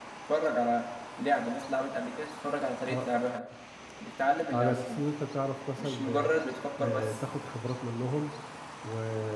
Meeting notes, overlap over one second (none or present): none